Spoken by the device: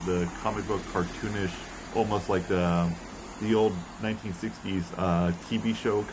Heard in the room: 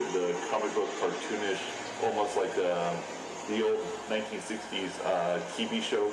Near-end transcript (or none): none